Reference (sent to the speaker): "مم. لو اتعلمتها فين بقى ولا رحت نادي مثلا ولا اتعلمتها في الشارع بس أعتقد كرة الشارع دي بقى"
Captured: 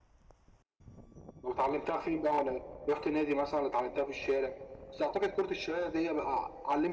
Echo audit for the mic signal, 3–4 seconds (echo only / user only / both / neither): echo only